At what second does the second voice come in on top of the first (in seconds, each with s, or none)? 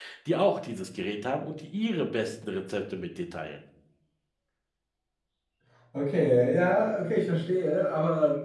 none